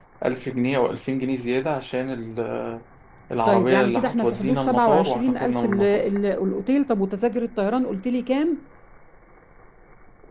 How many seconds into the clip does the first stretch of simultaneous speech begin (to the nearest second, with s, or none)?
3 s